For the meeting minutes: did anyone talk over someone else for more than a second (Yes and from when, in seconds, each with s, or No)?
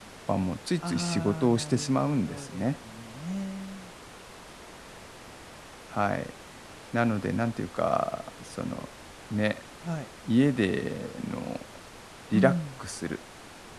Yes, from 0.8 s